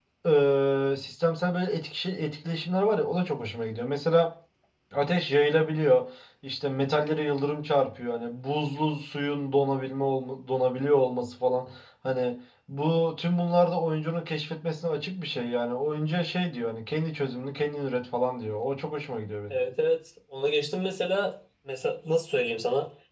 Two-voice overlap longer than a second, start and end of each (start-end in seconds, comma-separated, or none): none